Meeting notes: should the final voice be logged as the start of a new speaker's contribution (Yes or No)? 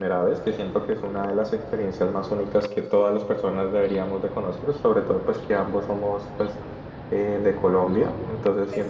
No